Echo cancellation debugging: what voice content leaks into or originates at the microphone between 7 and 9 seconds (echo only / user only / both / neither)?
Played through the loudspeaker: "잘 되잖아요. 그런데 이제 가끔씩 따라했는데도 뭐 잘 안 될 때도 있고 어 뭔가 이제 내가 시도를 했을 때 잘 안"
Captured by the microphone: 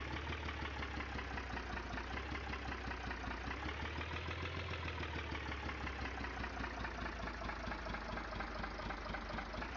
neither